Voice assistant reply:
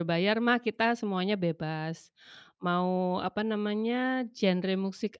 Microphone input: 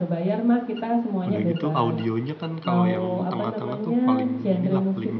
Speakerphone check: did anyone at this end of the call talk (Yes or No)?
Yes